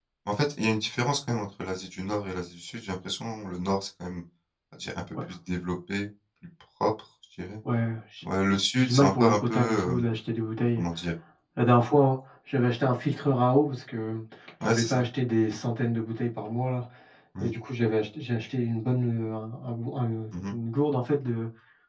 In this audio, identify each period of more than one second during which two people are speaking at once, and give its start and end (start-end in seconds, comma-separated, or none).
8.8-10.0